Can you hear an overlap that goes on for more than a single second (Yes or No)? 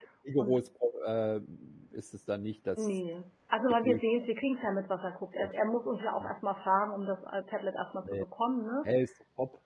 No